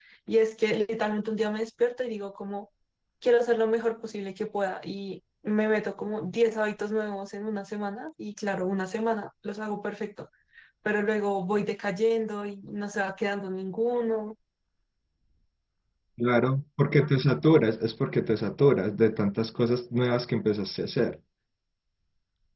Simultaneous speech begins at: none

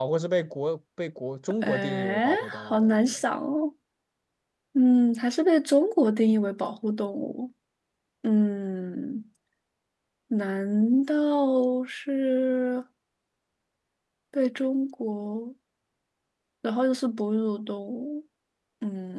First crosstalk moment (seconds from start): 1.6 s

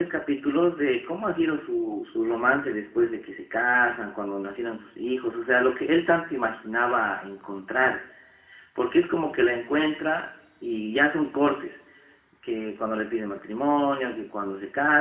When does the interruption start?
none

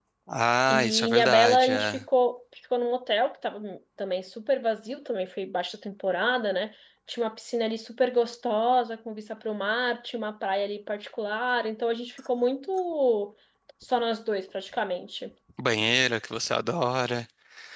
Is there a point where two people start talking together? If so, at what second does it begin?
0.7 s

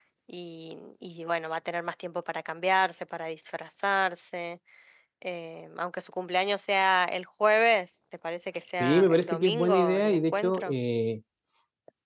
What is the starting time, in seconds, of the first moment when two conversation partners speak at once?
8.8 s

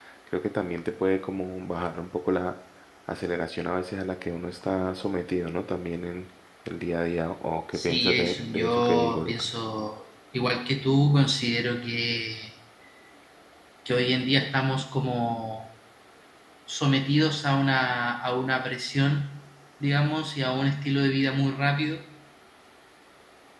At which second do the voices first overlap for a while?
7.7 s

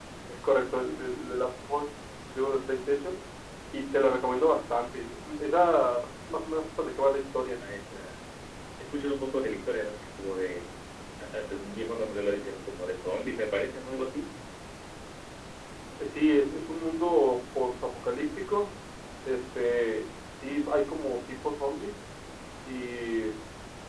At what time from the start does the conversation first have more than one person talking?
none

